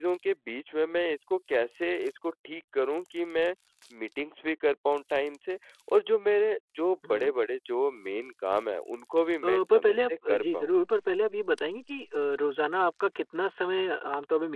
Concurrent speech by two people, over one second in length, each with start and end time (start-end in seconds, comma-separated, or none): 9.4-10.7